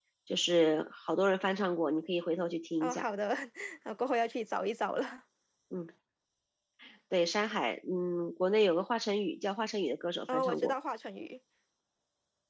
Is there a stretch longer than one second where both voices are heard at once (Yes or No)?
No